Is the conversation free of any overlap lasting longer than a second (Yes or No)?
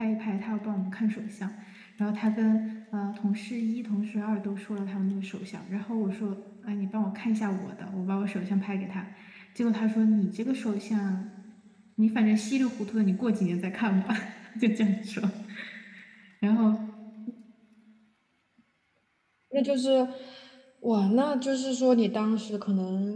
Yes